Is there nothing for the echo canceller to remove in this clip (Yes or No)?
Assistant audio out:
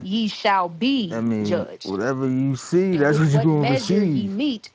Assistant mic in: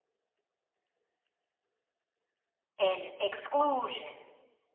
Yes